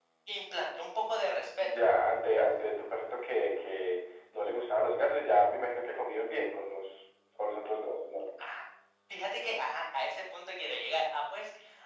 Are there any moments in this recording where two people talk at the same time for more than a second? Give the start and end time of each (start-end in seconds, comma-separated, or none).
none